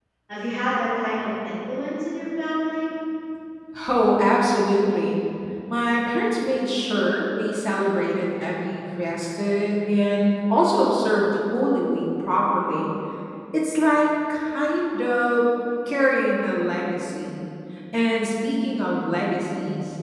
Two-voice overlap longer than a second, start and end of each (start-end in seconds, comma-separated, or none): none